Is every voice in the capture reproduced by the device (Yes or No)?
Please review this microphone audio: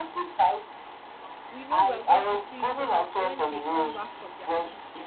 No